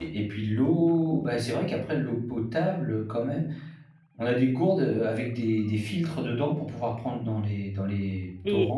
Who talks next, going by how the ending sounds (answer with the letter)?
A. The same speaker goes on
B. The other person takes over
B